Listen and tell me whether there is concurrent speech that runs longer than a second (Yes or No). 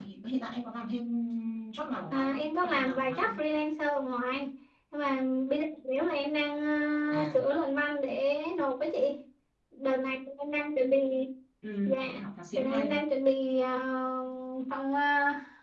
Yes